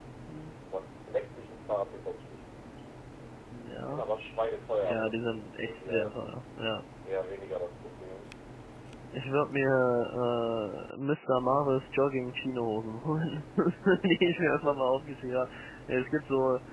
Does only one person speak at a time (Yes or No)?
No